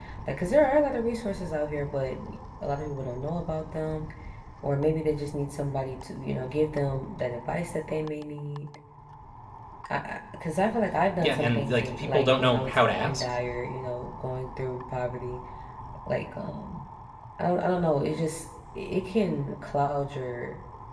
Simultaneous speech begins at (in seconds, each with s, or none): 11.2 s